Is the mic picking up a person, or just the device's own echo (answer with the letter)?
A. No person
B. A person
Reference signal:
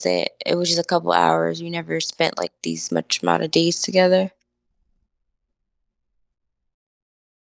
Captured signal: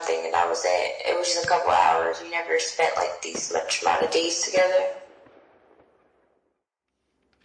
A